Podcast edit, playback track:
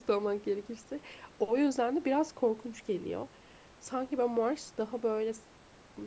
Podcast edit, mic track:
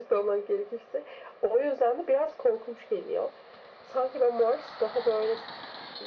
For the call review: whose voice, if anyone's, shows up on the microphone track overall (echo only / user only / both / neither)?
echo only